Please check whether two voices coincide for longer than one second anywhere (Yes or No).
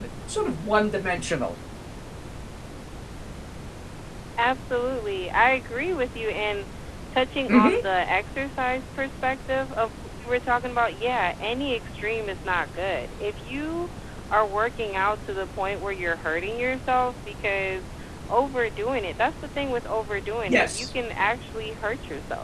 No